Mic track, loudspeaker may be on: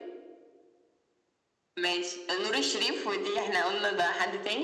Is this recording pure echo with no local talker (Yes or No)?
Yes